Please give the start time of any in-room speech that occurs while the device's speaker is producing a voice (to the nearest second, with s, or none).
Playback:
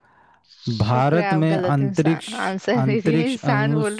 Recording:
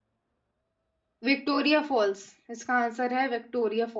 1 s